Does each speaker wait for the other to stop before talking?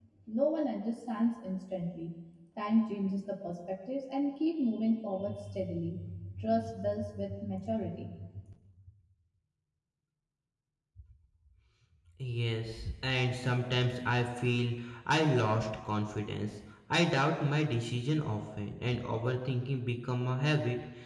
Yes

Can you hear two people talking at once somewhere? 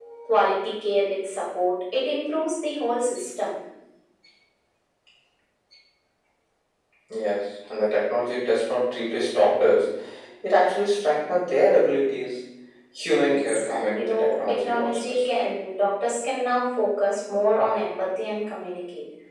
Yes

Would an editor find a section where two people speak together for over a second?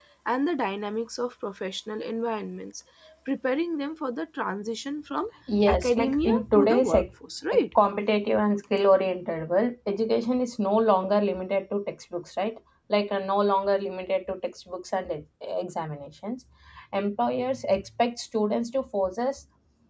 Yes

